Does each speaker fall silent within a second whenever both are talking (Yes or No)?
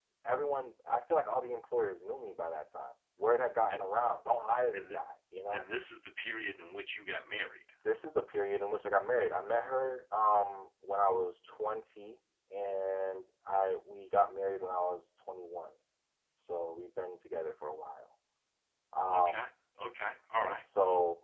Yes